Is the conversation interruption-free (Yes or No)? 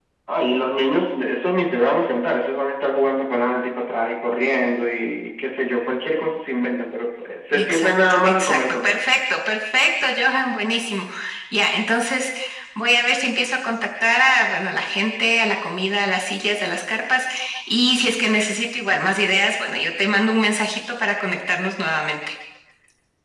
No